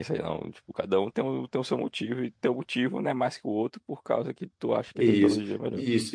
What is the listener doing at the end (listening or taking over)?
taking over